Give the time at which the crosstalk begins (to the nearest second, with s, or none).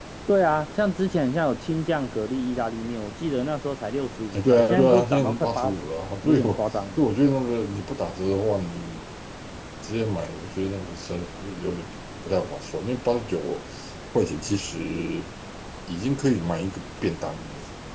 4 s